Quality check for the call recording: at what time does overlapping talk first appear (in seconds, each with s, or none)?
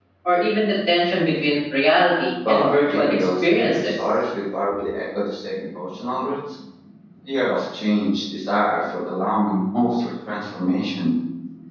2.4 s